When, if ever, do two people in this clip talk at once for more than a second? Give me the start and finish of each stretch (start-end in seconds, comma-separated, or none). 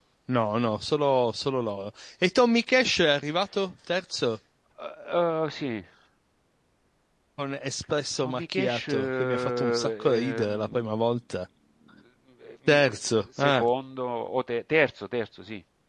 8.2-11.0